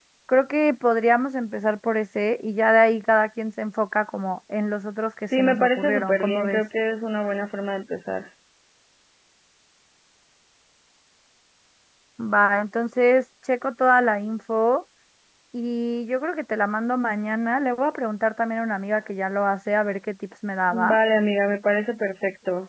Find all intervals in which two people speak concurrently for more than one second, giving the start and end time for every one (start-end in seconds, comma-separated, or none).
5.4-6.6